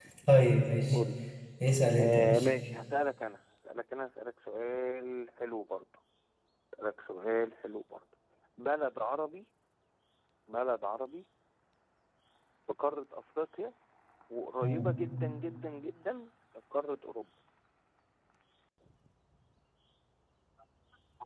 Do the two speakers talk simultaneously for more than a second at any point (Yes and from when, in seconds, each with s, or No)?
No